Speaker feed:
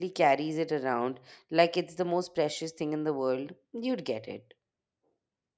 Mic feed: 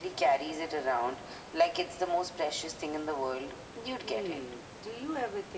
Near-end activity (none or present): present